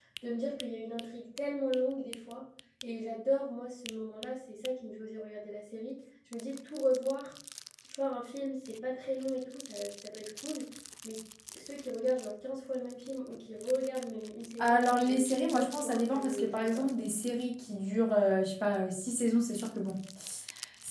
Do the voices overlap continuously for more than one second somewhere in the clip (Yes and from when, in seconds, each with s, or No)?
Yes, from 14.6 s